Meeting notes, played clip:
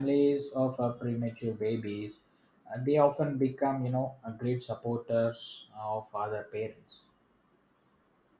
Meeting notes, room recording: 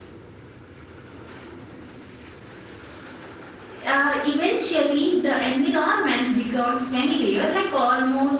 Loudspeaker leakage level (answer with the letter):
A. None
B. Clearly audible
A